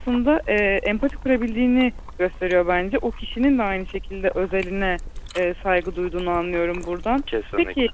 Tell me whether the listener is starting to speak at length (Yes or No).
No